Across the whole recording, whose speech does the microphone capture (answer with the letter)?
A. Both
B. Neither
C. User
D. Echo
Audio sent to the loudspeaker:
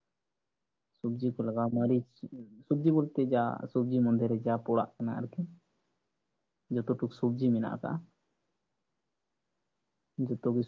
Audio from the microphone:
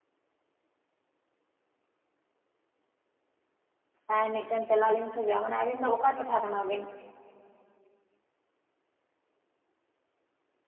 C